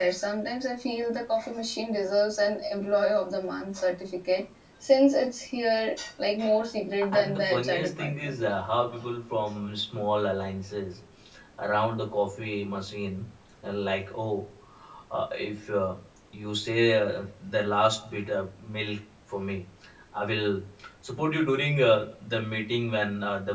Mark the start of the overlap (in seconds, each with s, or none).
7.1 s